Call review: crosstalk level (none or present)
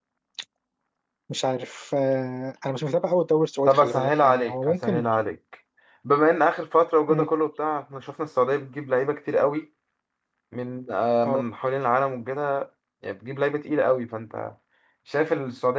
present